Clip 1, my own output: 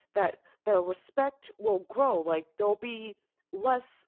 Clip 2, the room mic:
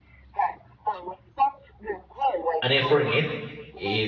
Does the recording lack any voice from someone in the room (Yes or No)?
No